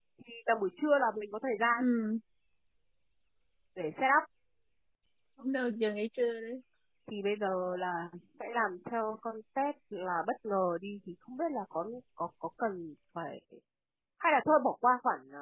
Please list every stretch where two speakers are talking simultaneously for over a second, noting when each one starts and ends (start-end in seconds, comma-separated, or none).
none